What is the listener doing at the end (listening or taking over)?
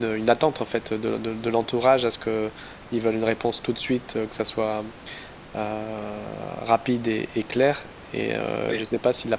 listening